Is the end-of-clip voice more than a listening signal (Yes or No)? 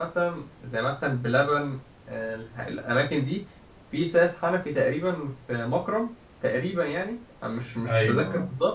No